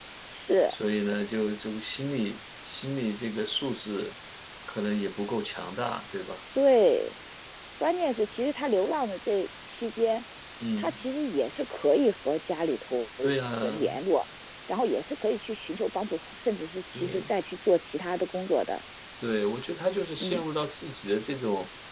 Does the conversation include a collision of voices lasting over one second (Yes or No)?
No